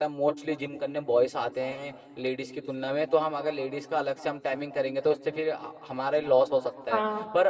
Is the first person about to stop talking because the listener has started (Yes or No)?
No